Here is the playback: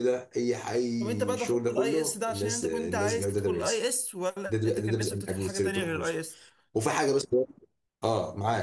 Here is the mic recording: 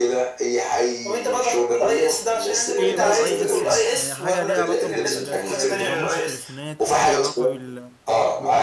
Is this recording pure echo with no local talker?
No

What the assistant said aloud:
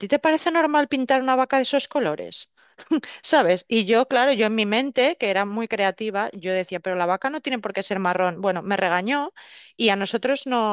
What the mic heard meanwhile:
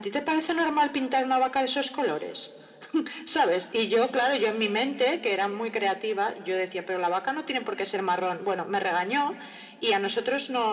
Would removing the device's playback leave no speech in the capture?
Yes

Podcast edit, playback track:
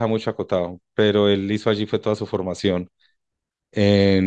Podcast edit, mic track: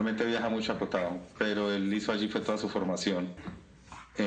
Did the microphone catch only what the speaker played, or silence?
Yes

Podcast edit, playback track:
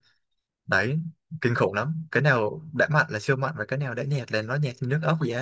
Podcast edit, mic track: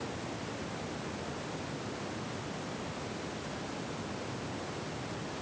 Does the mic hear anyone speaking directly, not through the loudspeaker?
No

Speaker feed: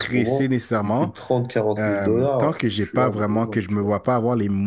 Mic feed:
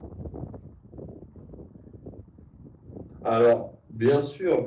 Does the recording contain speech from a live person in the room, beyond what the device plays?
Yes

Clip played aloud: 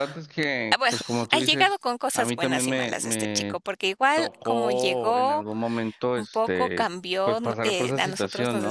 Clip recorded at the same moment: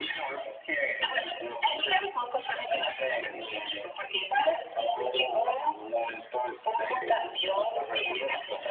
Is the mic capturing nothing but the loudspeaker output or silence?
Yes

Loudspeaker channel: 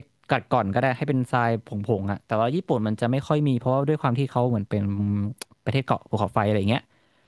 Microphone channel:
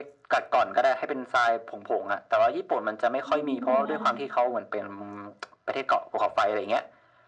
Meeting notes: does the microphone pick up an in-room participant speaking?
Yes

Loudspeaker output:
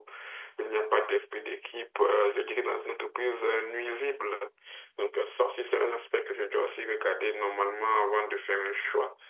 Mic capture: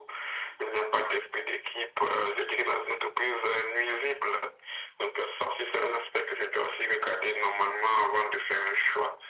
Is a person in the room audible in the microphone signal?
No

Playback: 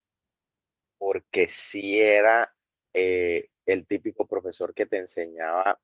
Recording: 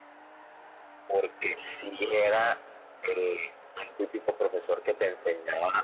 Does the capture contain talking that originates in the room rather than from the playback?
No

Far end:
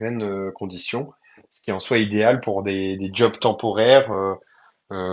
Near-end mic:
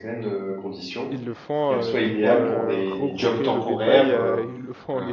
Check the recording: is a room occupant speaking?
Yes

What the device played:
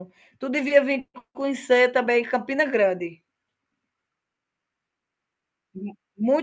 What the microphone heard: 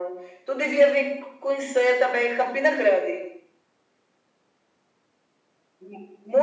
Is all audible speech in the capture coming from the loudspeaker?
Yes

